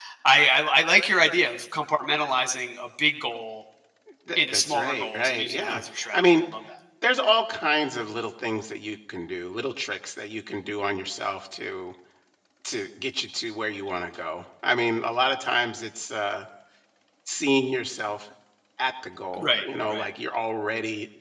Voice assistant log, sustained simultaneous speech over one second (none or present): present